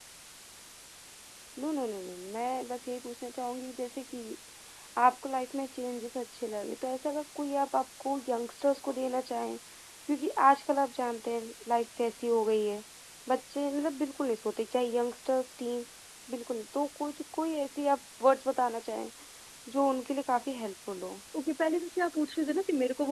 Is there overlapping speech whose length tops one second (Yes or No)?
No